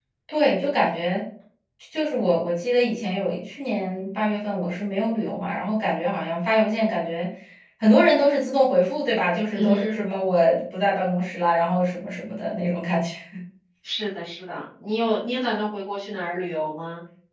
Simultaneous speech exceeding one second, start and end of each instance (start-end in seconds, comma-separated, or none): none